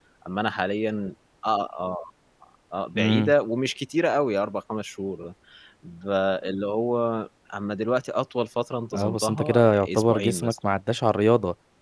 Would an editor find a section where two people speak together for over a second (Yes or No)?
Yes